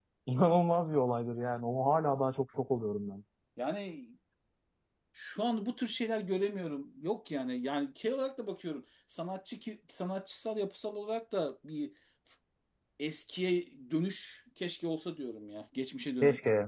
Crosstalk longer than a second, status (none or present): none